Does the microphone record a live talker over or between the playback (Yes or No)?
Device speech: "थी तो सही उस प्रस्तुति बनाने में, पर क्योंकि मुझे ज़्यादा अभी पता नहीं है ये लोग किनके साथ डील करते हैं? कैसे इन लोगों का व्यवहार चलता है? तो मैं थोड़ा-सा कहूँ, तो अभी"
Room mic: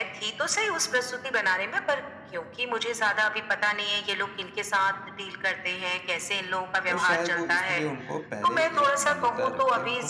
Yes